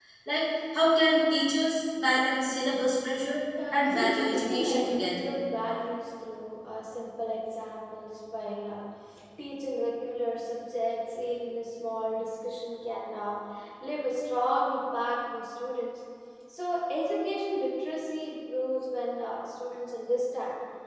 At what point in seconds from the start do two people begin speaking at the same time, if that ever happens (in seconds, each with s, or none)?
3.6 s